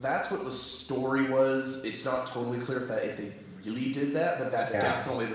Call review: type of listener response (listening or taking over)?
listening